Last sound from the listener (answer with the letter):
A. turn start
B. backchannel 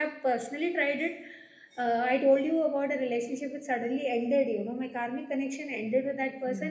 B